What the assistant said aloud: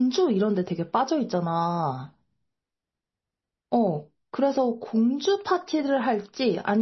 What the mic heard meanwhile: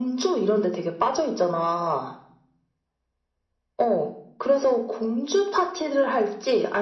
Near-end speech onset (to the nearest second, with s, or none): none